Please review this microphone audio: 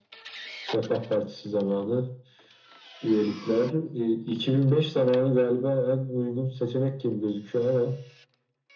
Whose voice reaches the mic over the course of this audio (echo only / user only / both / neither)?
echo only